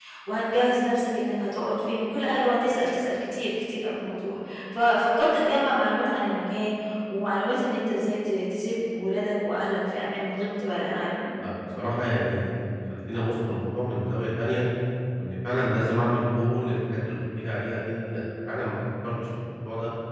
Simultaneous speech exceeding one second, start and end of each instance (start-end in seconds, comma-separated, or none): none